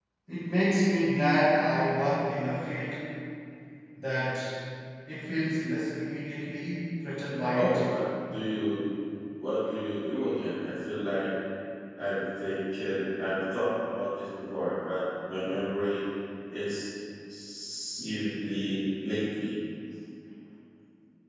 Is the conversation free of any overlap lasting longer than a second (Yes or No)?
Yes